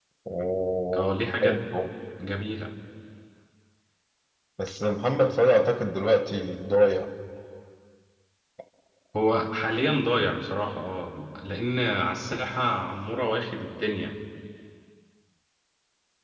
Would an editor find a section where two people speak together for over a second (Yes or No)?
No